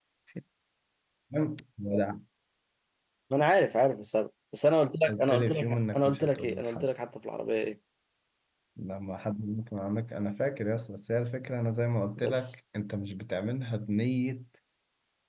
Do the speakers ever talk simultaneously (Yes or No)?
Yes